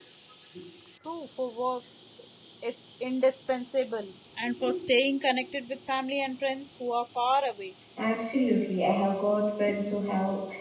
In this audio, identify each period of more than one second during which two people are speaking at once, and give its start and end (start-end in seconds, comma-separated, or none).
none